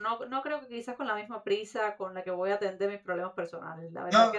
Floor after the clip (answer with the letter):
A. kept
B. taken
B